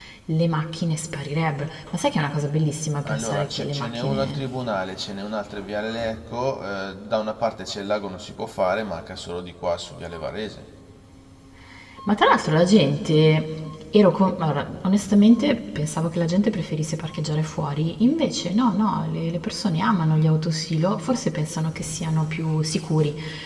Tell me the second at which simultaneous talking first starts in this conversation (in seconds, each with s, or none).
3.0 s